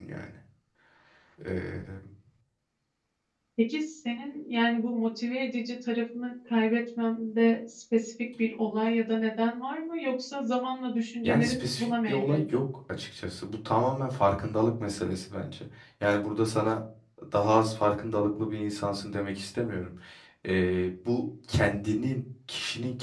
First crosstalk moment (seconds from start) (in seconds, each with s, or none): 11.2 s